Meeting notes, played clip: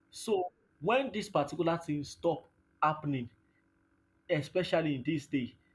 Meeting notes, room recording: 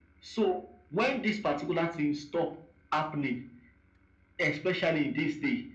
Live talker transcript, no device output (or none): none